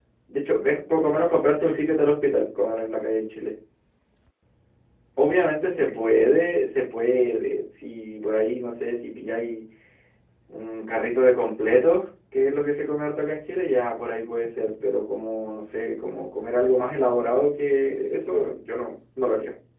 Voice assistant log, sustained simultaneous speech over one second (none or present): present